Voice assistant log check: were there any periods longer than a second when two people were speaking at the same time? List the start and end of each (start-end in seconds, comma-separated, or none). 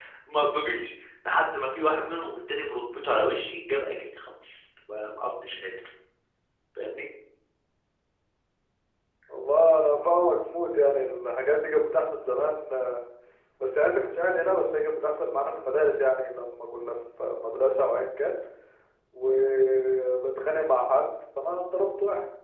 none